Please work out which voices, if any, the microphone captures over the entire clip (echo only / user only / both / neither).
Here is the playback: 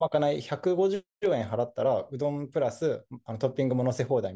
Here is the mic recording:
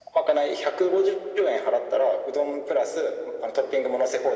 echo only